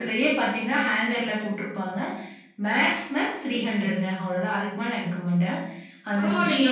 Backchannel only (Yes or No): No